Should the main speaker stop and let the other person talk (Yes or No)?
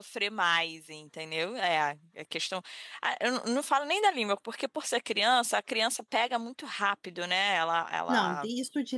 Yes